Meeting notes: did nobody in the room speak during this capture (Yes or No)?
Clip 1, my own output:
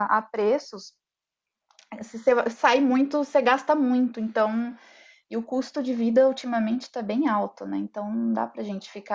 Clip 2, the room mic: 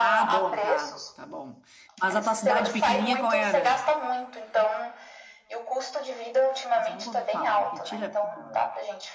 No